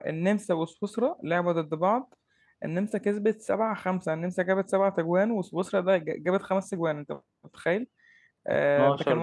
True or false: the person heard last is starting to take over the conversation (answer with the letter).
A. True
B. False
B